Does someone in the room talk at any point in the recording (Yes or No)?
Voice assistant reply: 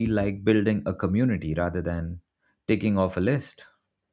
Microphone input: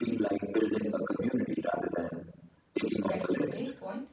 Yes